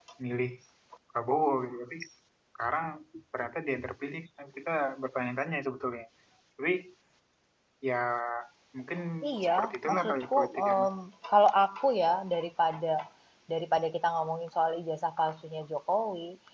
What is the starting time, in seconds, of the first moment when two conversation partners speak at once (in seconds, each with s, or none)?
9.4 s